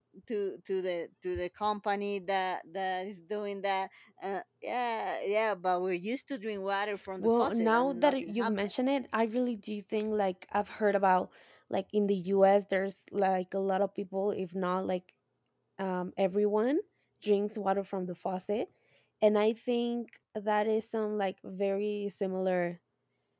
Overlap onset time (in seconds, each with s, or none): 7.2 s